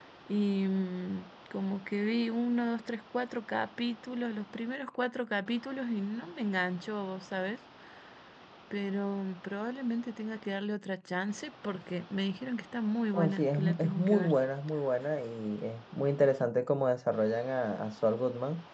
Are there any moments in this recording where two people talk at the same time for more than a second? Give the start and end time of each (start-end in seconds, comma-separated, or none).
13.1-14.3